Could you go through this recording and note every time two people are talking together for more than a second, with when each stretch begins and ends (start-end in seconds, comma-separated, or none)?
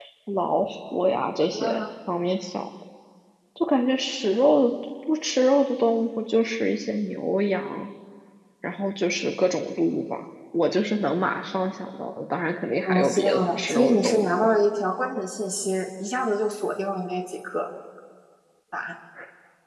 12.8-14.3